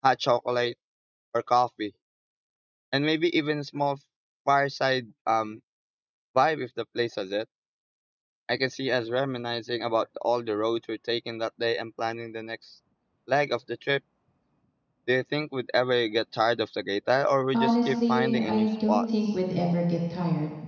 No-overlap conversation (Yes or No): No